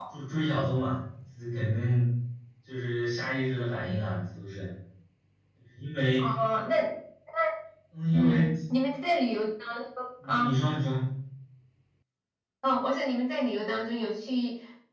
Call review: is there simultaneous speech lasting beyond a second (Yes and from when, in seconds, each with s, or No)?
No